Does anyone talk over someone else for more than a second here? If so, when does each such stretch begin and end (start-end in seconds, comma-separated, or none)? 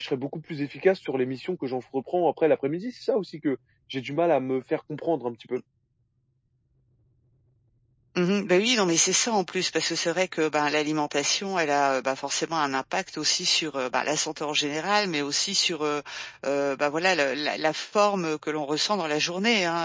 none